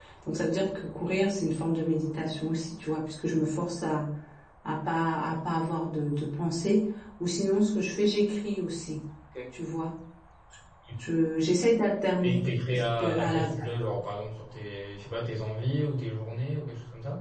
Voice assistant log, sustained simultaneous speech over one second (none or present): present